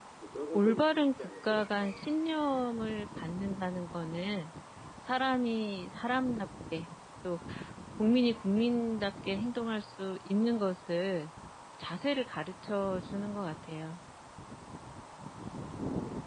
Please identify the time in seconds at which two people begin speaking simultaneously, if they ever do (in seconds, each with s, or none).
0.5 s